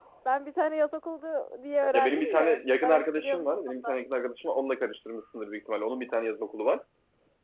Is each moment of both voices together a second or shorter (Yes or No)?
No